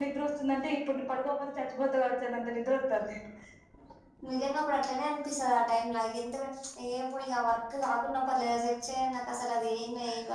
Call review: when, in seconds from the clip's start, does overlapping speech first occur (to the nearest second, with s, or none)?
none